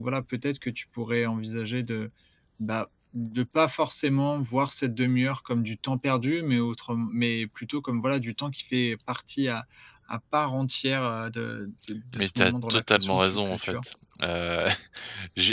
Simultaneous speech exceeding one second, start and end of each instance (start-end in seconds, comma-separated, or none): 12.2-13.8